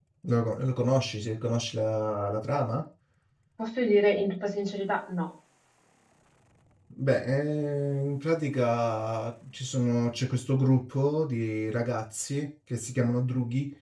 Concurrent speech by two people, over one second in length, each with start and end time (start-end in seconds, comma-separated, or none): none